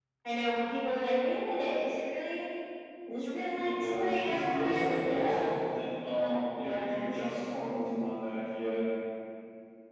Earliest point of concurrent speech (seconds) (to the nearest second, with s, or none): 4 s